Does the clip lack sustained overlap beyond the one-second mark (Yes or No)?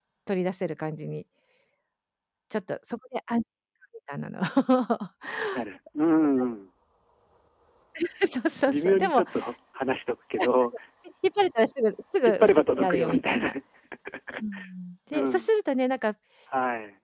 No